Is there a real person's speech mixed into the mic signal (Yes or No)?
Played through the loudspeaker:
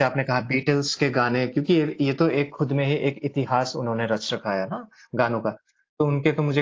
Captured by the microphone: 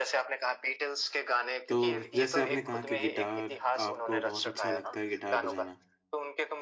Yes